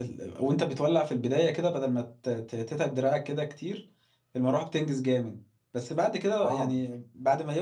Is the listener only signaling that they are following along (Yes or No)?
Yes